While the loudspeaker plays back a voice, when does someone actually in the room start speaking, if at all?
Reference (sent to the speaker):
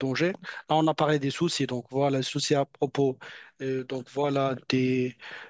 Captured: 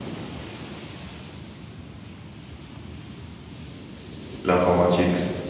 4.4 s

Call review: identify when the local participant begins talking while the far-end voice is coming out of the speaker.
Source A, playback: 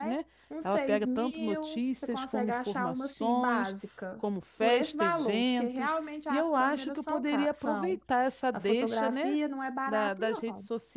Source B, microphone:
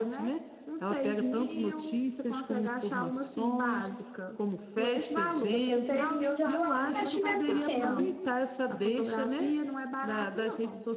5.5 s

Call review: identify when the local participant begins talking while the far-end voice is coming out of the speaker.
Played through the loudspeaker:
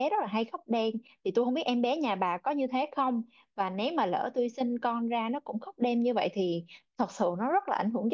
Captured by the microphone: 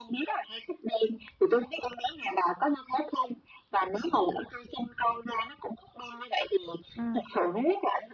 6.9 s

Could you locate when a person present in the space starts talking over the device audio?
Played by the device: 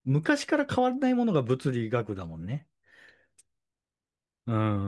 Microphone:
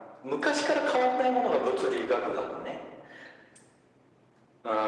none

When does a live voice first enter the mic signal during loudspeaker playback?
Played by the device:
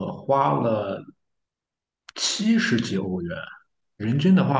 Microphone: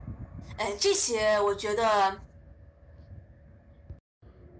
0.6 s

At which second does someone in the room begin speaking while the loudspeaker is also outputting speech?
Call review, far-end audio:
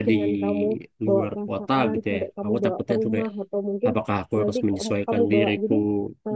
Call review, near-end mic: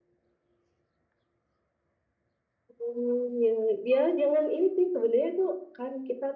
2.8 s

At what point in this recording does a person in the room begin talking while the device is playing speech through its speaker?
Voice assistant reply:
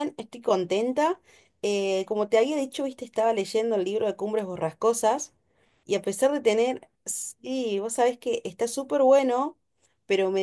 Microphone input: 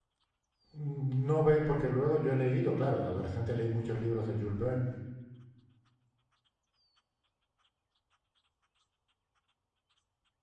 0.7 s

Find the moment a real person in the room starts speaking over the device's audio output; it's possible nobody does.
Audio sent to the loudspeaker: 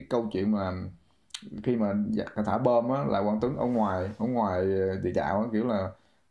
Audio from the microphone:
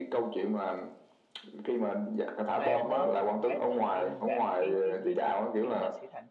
2.5 s

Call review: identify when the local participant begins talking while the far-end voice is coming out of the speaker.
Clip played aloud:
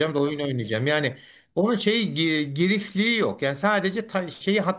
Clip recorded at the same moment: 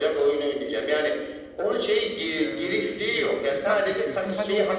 2.3 s

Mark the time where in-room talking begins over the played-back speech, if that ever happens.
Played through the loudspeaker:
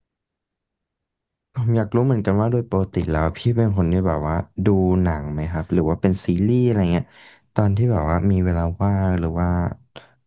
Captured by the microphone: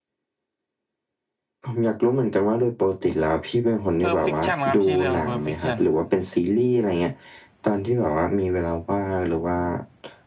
4.0 s

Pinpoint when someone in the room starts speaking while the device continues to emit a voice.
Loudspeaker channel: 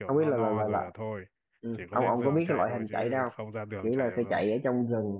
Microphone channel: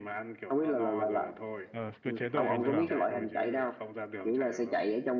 1.7 s

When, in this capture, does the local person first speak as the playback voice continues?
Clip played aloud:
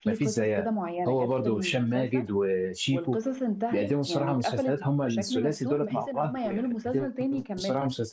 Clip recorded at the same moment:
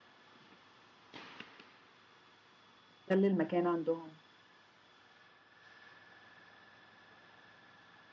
3.1 s

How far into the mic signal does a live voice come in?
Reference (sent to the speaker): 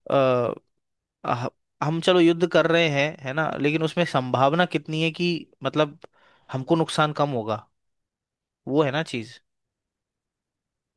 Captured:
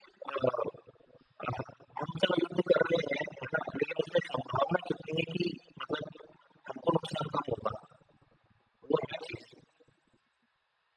none

